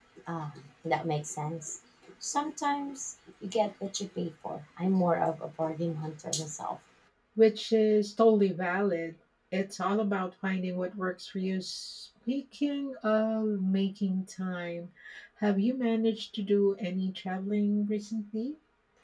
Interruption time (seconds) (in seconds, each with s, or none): none